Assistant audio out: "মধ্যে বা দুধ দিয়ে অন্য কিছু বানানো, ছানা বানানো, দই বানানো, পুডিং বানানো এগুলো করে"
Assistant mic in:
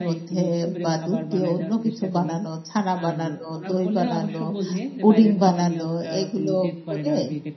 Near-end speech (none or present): present